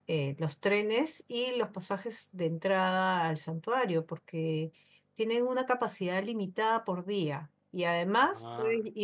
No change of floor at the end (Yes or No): Yes